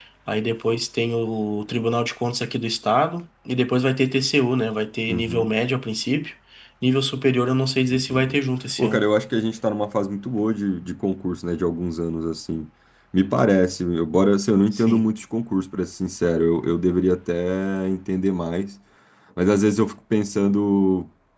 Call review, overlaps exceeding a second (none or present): none